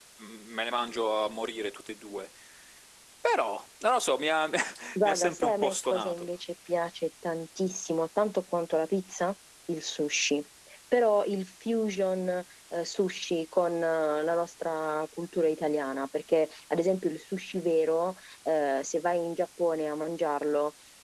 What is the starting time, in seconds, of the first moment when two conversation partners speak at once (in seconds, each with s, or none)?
5.0 s